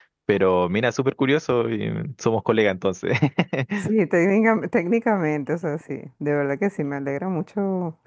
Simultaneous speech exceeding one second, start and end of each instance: none

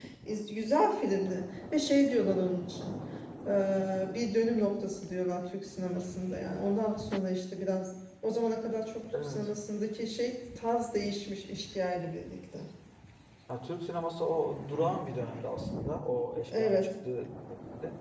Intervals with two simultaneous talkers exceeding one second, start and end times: none

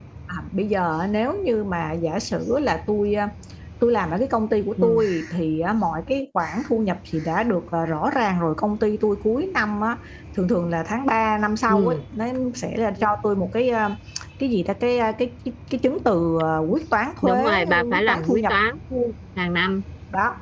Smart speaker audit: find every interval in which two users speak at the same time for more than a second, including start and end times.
17.2-18.5

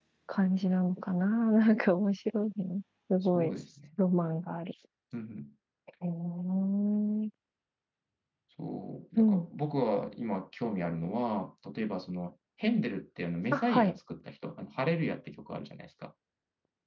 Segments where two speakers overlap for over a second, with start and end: none

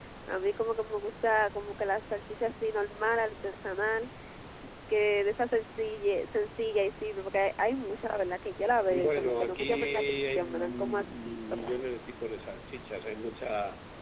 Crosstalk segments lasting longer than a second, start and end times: 8.9-11.5

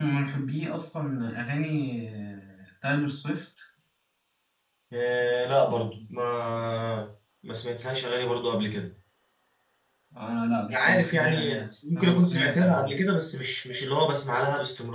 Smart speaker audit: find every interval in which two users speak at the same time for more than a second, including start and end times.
10.7-12.9

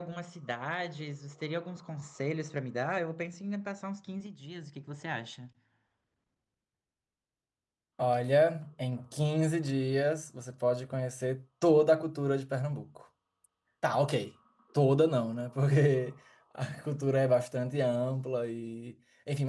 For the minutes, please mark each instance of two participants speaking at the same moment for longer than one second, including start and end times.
none

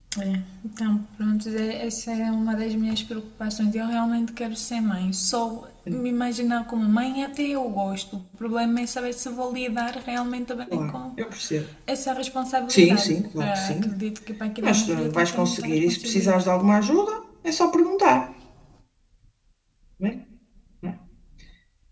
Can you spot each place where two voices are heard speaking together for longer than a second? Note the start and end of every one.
12.7-13.9, 14.6-16.5

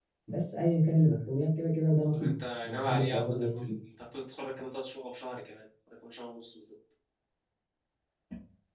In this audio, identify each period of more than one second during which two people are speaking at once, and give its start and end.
2.1-3.7

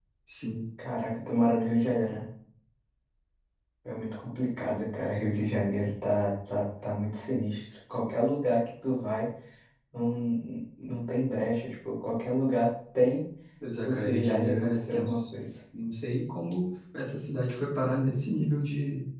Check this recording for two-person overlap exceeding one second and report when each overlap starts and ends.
13.8-15.2

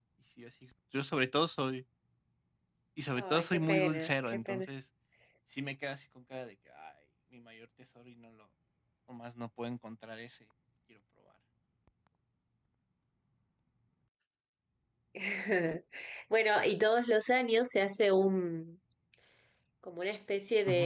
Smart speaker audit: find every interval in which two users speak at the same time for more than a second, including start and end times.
3.1-4.7

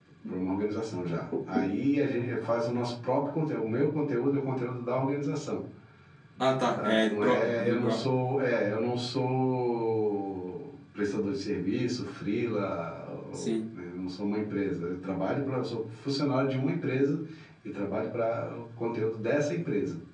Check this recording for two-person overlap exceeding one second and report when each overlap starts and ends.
6.8-8.0

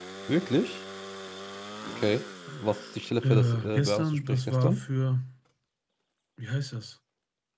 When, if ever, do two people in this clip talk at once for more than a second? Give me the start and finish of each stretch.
3.2-4.8

